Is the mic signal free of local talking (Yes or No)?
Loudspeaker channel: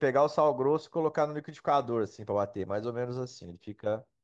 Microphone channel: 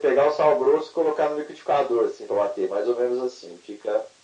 Yes